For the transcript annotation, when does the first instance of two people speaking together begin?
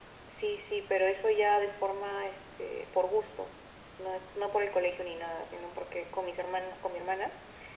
none

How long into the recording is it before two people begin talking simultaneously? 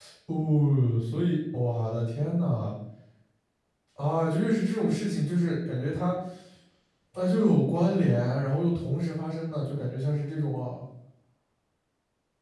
none

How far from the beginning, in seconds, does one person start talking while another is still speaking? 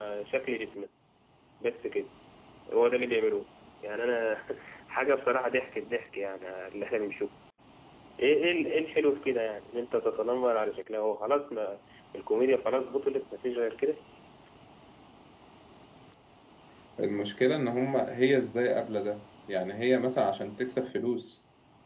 none

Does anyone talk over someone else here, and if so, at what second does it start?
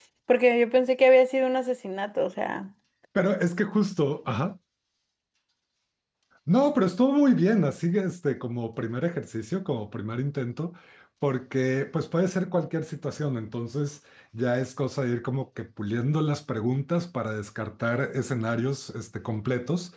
none

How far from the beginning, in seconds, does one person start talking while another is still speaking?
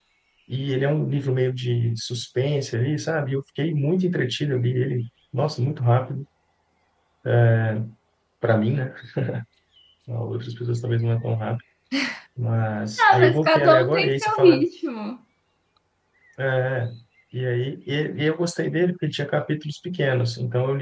13 s

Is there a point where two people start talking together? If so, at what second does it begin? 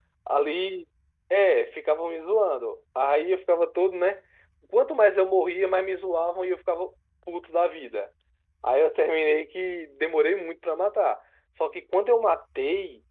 none

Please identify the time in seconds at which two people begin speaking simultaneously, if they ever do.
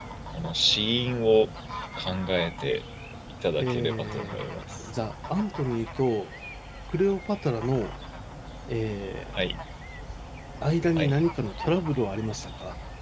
4 s

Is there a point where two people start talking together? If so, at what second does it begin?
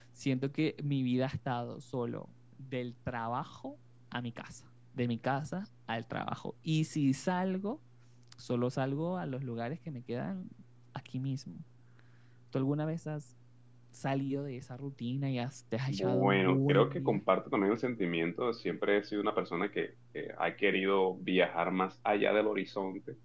16 s

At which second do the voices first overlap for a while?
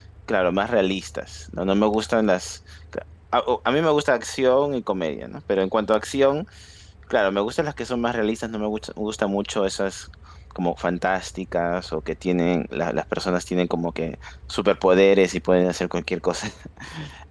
none

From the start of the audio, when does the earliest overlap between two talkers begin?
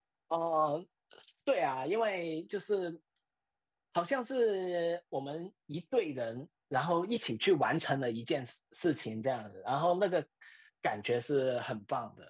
none

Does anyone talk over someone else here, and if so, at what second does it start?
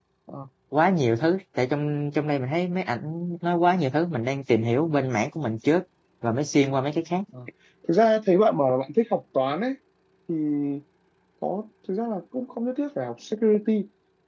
none

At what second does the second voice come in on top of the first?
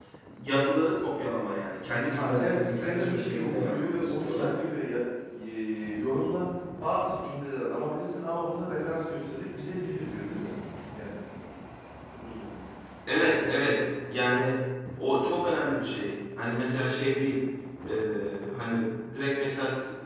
2 s

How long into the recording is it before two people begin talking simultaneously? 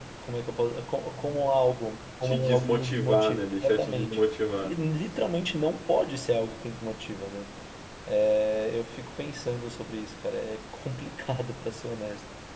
2 s

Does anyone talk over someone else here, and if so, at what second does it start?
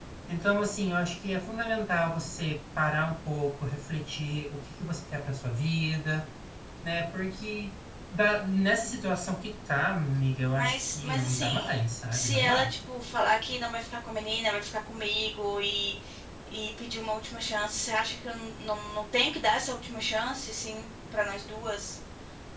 11 s

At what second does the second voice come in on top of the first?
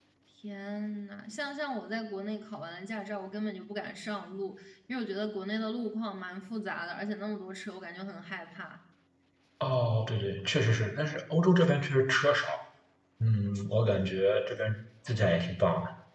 none

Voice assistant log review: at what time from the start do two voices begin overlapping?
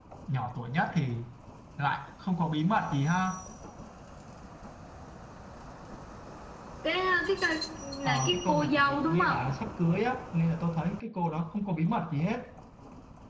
8 s

